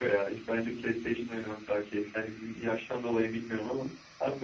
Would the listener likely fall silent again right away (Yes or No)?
Yes